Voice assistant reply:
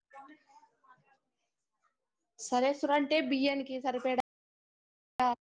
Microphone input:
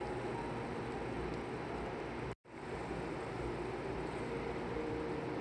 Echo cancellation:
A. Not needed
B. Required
A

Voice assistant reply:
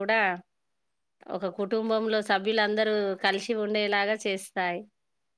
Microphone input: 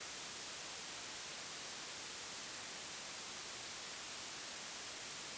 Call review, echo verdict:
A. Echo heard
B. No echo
B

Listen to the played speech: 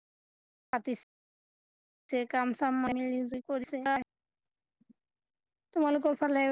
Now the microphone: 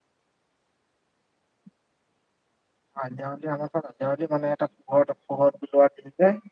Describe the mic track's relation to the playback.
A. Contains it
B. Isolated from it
B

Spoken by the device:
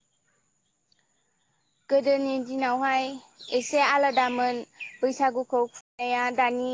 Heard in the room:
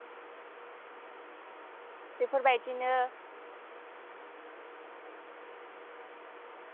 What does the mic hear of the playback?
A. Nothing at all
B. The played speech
A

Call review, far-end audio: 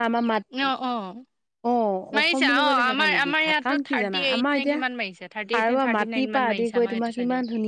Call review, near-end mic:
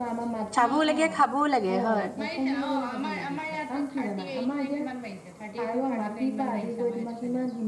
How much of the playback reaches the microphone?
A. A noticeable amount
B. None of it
A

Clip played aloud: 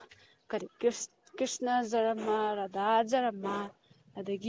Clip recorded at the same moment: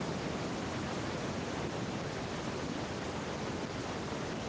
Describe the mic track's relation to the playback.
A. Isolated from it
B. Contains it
A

